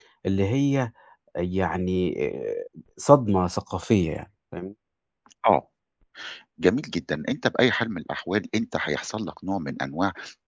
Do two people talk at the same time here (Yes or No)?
No